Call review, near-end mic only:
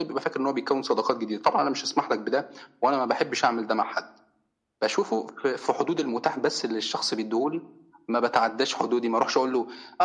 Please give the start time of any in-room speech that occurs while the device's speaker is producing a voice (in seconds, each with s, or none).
none